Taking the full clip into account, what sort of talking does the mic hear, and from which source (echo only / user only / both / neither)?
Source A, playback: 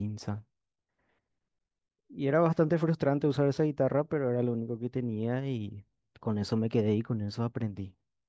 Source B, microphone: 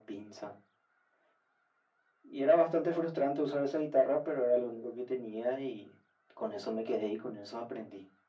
echo only